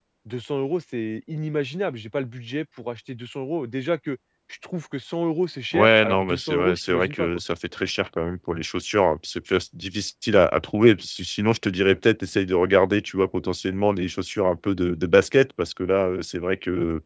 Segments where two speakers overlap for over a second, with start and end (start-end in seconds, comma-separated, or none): 5.7-7.3